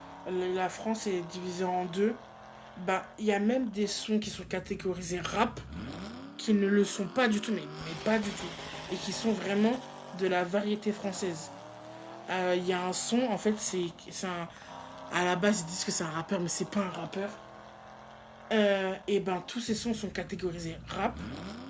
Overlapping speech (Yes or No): No